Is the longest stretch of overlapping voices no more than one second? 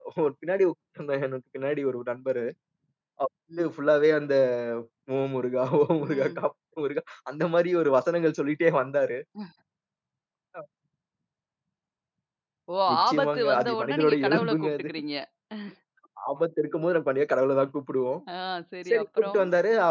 No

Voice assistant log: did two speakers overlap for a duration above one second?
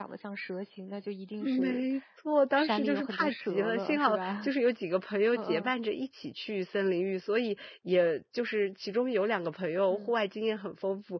Yes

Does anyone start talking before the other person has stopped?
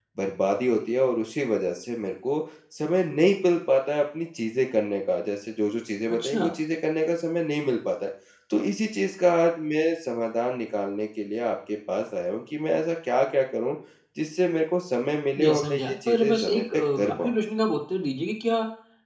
Yes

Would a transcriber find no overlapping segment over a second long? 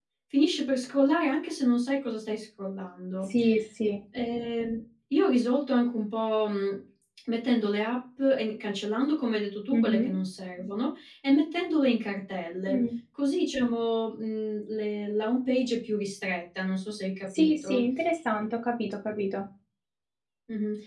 Yes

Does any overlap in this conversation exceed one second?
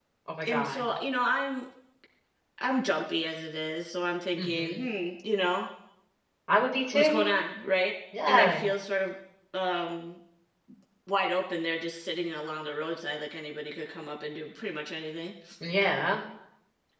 No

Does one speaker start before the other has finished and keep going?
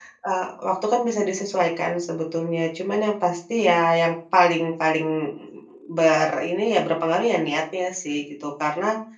No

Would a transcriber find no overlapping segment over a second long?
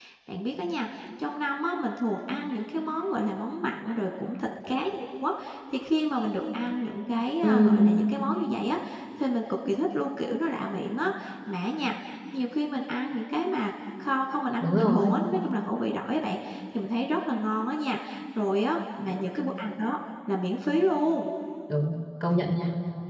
Yes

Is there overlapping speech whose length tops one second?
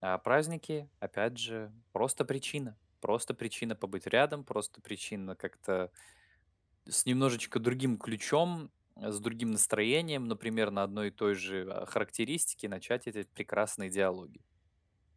No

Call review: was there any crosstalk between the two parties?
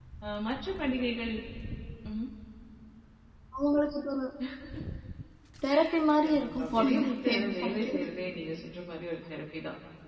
Yes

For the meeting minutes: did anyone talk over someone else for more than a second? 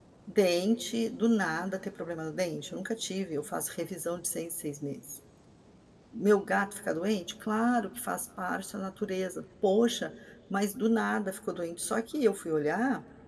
No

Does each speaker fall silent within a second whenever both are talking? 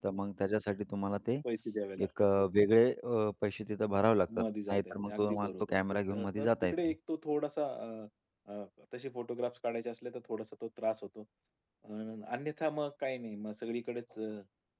No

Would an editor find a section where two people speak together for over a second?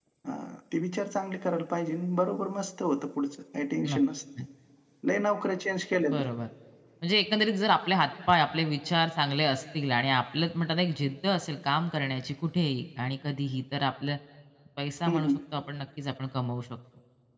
No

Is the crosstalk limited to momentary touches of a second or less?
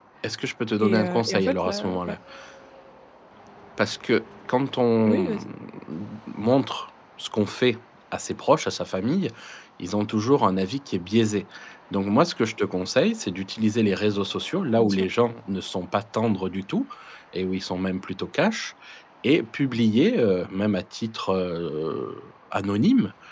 No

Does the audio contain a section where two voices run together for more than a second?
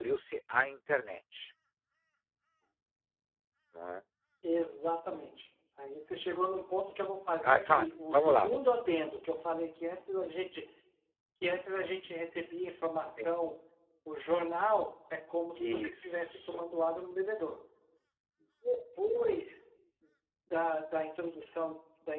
Yes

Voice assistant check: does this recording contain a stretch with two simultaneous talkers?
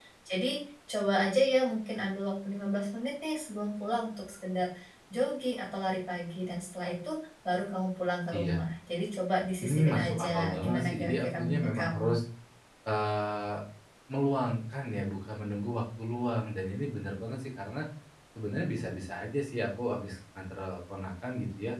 Yes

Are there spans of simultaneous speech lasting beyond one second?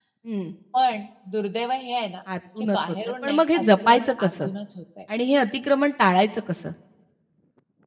Yes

